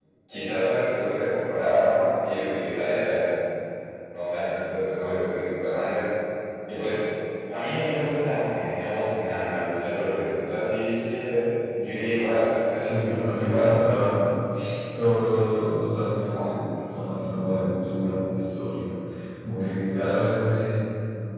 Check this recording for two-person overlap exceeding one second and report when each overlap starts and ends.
12.8-14.0

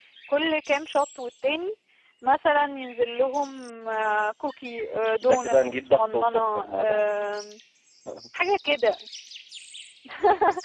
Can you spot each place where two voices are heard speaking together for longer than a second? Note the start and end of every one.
5.2-7.1

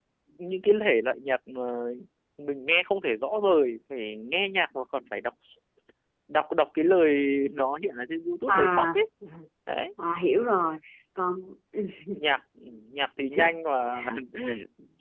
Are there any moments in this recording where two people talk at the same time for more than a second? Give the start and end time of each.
none

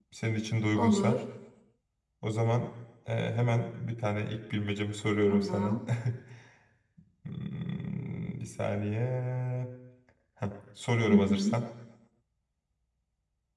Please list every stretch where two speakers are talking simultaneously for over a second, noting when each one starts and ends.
none

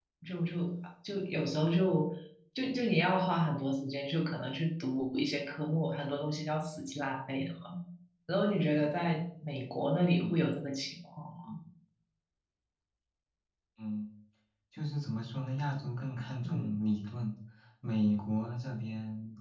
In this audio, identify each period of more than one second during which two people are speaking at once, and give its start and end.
none

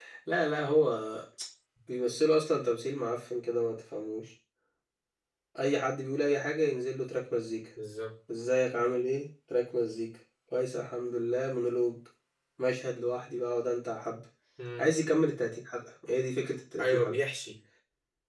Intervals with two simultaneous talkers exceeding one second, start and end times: none

